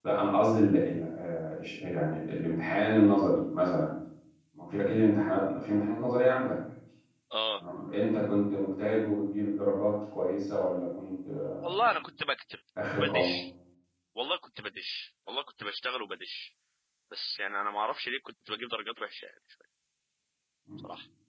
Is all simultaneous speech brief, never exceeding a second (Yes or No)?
Yes